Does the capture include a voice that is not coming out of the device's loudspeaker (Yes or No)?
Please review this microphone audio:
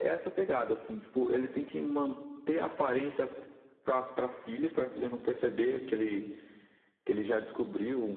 No